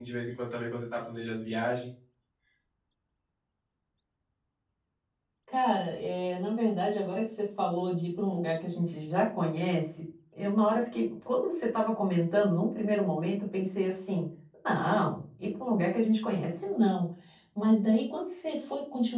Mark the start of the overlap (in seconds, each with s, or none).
none